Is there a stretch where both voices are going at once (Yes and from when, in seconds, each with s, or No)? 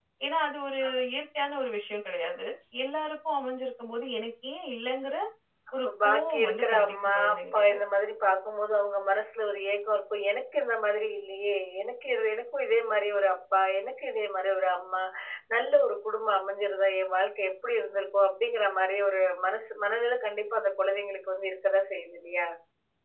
Yes, from 5.8 s